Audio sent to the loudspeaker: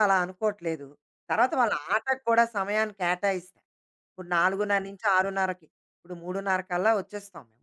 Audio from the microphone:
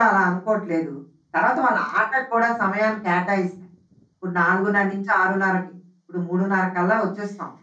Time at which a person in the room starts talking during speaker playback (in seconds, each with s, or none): none